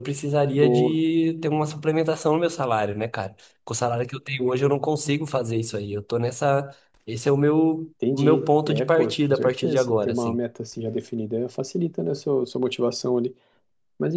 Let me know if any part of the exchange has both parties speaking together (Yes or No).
Yes